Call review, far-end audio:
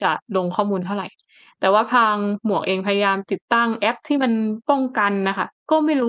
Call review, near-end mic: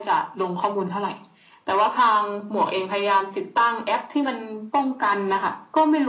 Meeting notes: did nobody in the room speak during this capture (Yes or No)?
Yes